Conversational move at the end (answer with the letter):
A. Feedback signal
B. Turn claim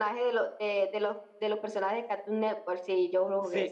B